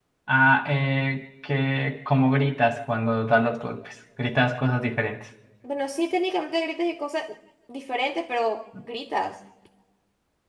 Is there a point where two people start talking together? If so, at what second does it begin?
none

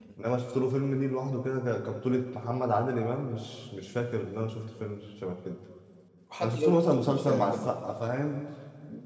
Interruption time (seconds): 6.4 s

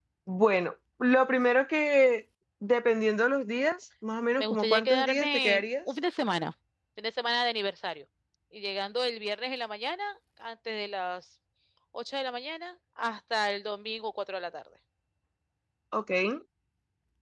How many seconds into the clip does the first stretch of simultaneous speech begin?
4.4 s

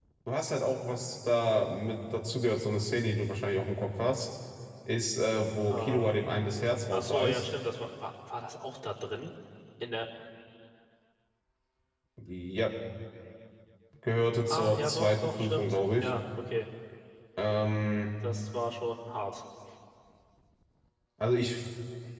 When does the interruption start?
5.7 s

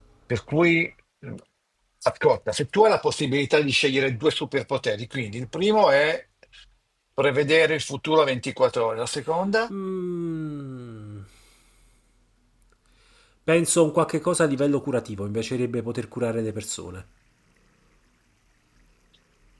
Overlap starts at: none

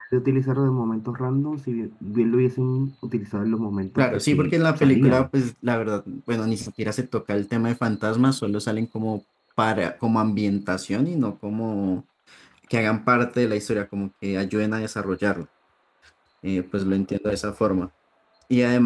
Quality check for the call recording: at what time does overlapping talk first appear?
4.0 s

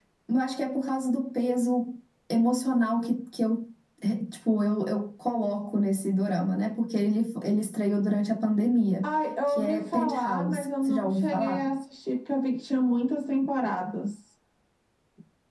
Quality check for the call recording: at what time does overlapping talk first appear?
9.0 s

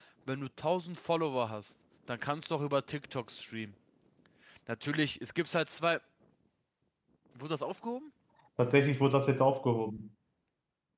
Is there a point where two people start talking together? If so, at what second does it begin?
none

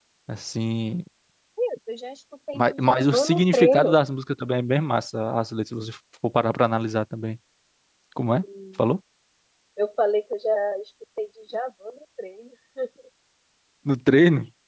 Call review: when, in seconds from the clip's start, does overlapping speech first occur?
2.5 s

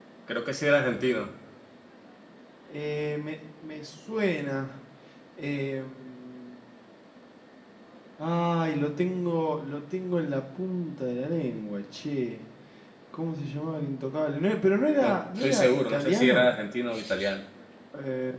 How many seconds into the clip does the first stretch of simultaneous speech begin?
15.0 s

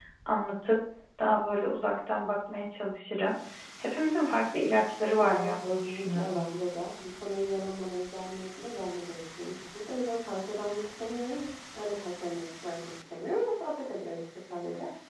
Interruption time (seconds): 5.2 s

